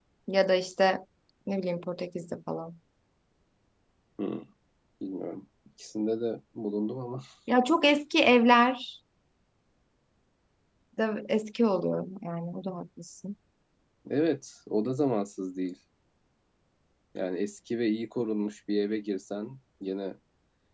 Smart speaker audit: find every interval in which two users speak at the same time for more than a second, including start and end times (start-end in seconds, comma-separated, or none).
none